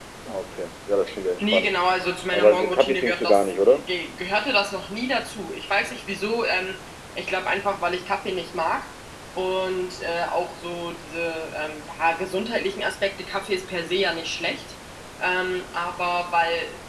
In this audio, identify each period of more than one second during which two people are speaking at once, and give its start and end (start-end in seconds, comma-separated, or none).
2.3-3.9